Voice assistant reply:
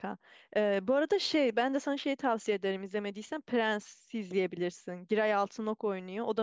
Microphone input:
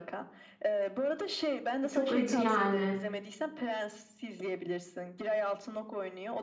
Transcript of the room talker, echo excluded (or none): Çok acı yani.